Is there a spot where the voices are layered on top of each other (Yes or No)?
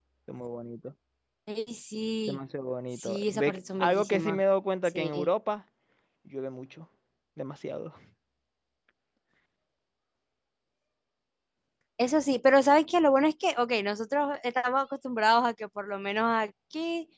Yes